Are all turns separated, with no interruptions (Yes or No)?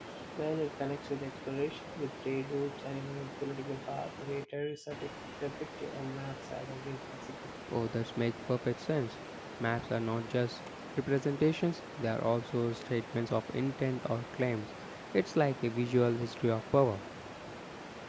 Yes